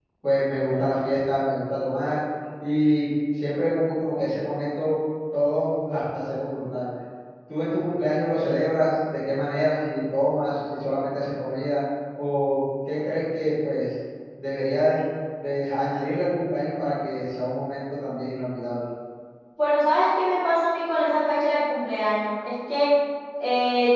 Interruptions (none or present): none